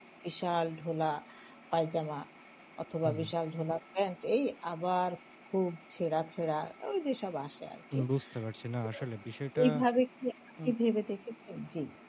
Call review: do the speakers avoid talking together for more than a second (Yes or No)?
Yes